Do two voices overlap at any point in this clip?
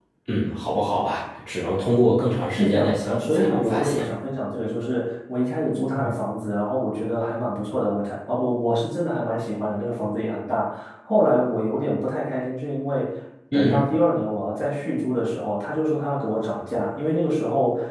Yes, from 2.6 s

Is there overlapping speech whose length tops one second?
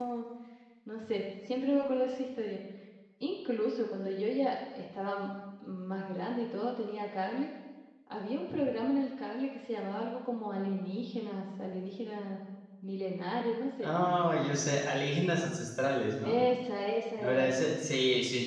No

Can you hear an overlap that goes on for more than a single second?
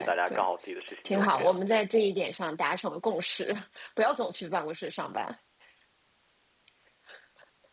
No

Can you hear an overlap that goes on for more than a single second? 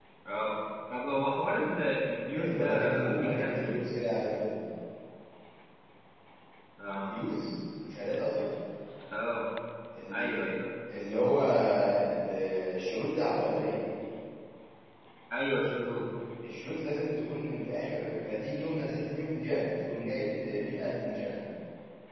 Yes, from 2.3 s

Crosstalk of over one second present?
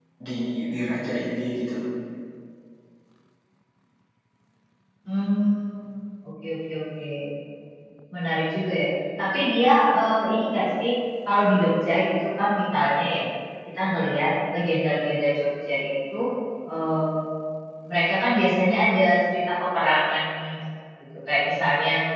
No

